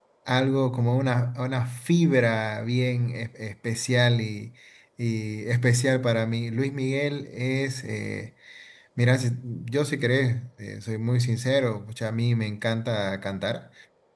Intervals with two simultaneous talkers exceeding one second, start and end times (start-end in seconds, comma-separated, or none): none